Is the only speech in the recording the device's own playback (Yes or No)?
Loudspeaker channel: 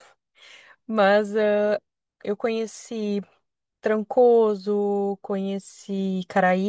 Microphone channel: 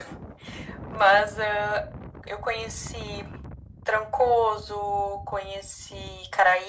Yes